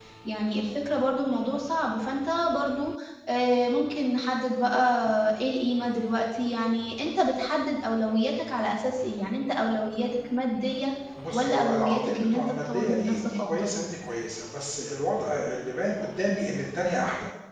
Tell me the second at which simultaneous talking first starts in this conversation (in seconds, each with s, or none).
11.3 s